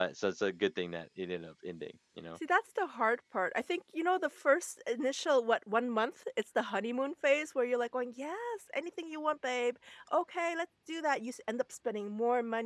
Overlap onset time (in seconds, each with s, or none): none